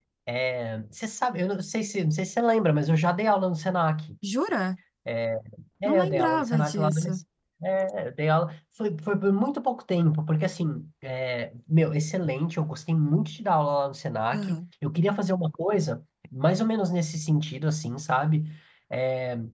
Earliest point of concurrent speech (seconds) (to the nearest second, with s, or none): 6 s